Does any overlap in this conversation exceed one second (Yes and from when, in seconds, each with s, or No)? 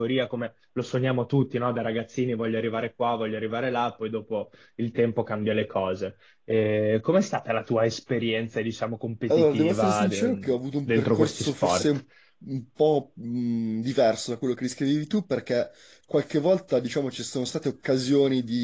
Yes, from 9.3 s